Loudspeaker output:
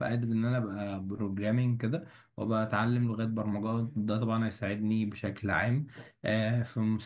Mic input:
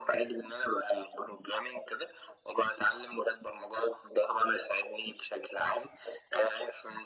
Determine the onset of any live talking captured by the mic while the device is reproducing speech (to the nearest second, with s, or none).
none